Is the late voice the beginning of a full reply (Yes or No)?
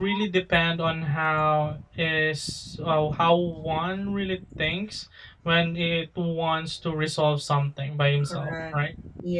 Yes